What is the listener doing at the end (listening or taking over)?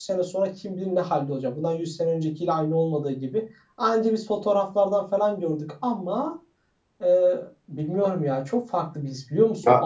listening